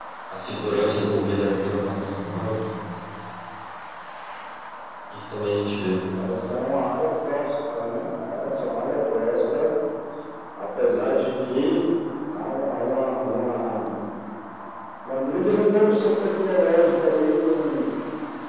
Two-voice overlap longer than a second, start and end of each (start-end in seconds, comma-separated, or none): none